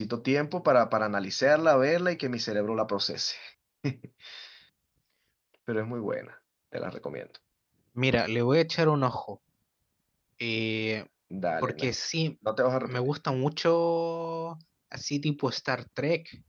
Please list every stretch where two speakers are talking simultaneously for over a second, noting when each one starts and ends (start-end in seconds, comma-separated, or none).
none